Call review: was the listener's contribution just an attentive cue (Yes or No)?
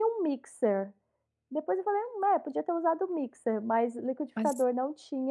Yes